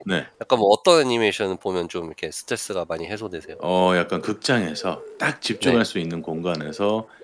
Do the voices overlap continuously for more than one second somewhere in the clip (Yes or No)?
No